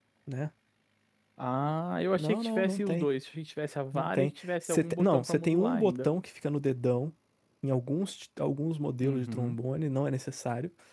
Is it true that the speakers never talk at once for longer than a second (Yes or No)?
No